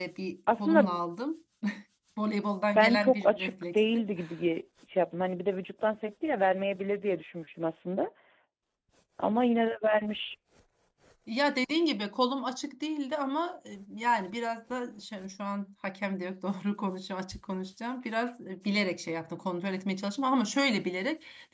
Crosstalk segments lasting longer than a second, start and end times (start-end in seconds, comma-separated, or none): 2.8-4.0